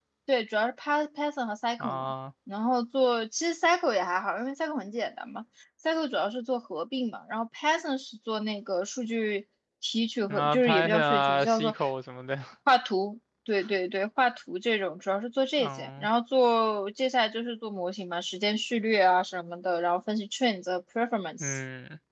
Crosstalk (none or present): present